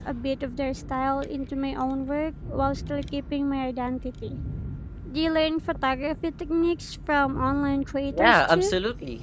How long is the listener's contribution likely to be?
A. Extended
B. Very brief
A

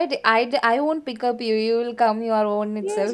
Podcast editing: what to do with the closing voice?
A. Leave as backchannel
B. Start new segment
B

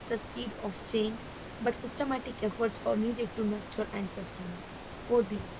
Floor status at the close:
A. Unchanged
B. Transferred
B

